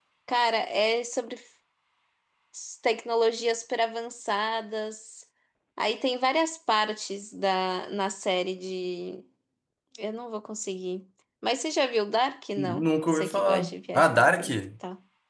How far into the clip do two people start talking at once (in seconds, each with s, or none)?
12.6 s